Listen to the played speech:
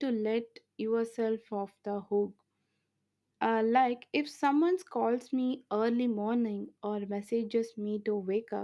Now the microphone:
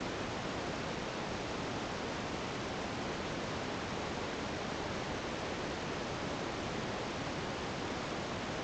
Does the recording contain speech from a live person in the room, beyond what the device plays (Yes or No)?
No